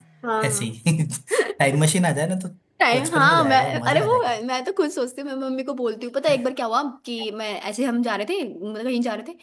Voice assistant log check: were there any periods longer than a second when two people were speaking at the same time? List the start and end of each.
3.0-4.4

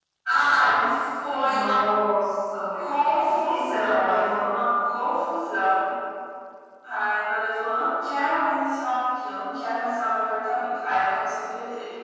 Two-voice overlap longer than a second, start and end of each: 3.3-4.6

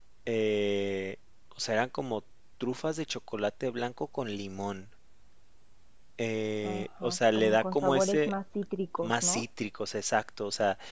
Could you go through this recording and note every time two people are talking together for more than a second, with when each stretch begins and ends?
6.6-8.3

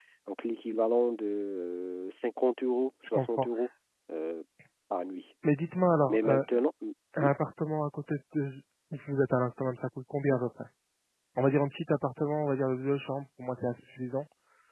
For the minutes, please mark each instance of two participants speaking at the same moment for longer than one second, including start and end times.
none

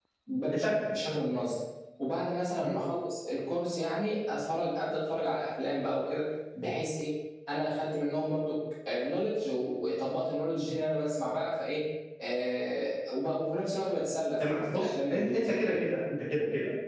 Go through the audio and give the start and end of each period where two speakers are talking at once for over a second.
14.4-15.8

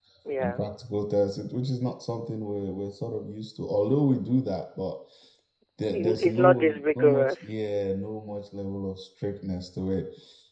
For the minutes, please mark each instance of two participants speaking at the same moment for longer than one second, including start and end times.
5.9-7.5

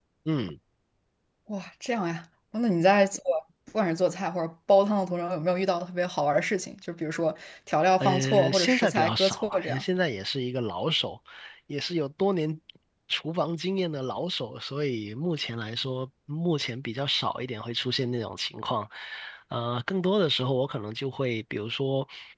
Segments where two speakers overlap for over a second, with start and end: 8.0-9.8

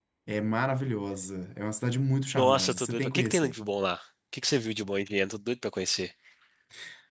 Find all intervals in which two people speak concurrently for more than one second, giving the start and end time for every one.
2.3-3.5

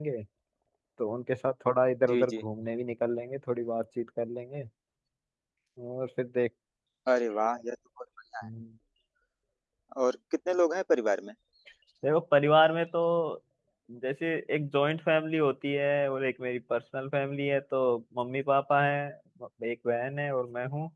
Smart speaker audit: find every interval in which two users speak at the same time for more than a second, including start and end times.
none

